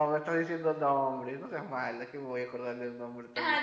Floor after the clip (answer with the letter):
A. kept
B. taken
B